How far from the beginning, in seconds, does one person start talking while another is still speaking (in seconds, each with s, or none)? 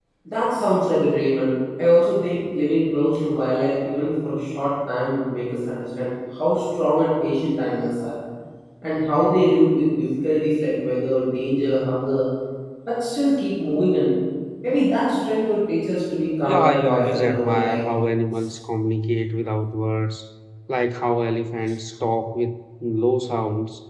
16.4 s